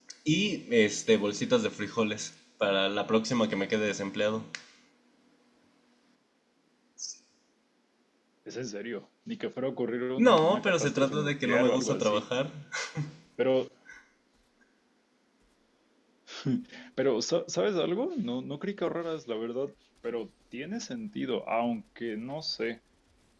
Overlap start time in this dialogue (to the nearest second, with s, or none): 10 s